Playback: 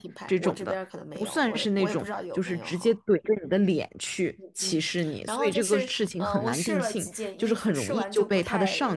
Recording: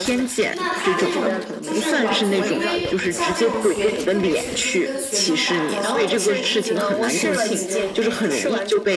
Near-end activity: present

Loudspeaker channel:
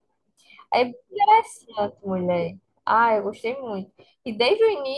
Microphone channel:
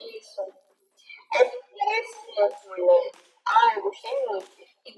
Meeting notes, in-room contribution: none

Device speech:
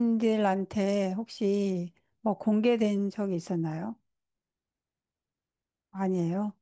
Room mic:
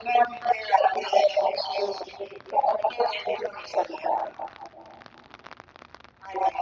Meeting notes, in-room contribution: none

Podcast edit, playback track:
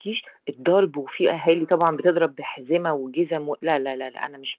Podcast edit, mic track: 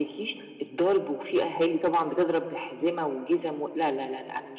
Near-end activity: none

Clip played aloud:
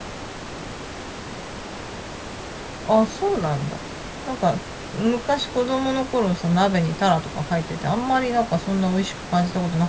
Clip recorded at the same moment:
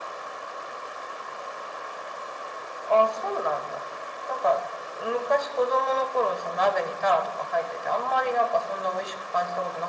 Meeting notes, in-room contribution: none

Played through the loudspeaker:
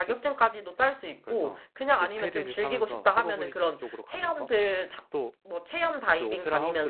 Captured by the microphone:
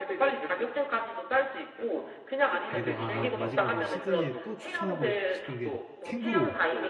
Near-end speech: present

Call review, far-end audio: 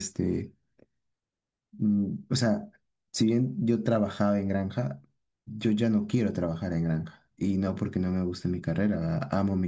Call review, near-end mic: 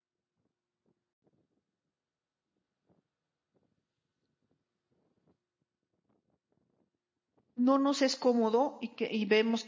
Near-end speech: present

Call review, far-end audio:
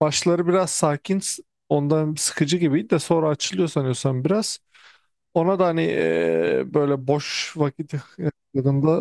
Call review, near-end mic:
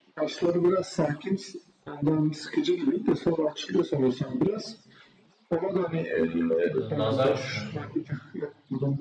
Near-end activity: present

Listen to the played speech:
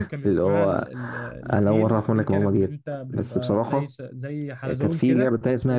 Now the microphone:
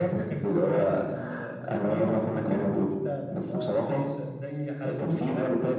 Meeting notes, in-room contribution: none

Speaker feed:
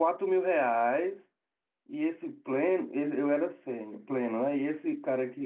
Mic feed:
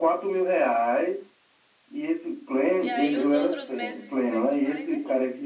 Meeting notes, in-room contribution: present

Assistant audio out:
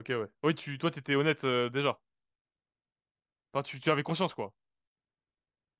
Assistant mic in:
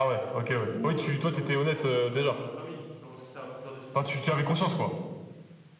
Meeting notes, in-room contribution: present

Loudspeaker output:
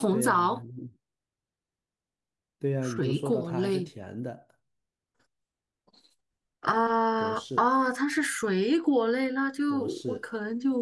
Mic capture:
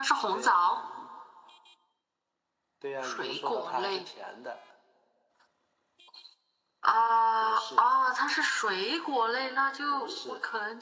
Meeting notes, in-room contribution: none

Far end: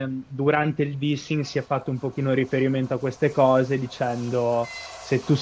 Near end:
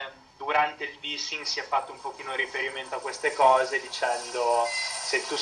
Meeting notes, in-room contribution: none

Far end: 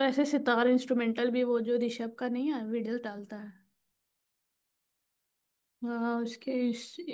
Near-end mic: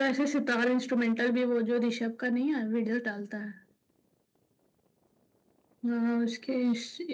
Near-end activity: none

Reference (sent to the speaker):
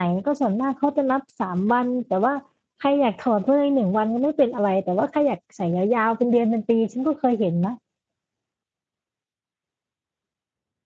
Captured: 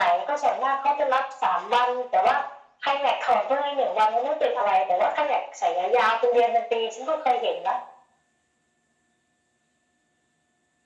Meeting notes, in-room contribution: none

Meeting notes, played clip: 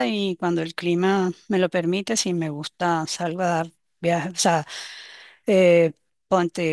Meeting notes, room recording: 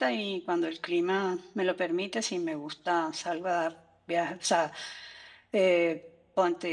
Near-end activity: none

